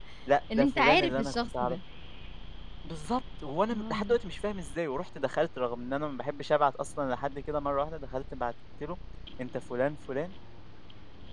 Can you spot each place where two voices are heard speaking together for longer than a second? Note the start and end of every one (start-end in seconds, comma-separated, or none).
0.6-1.8